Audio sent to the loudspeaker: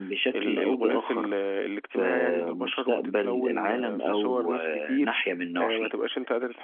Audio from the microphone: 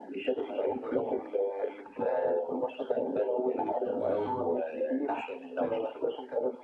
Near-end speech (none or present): present